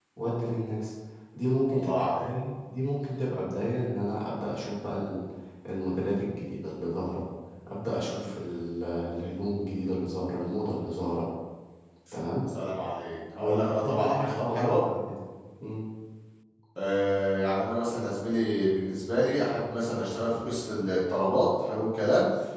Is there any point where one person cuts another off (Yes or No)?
Yes